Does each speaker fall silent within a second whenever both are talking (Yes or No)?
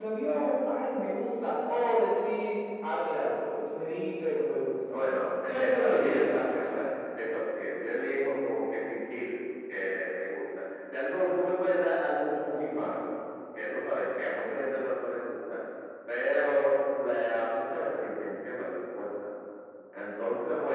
No